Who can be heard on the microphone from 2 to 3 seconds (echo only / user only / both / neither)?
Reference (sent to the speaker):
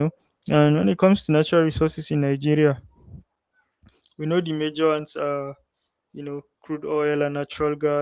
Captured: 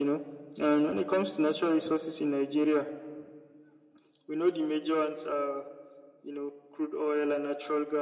echo only